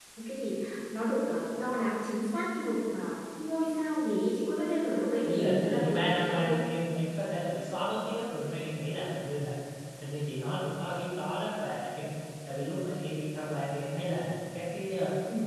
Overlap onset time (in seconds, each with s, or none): 5.3 s